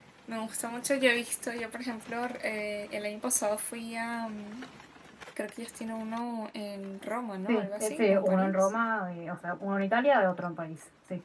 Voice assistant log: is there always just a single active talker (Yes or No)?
No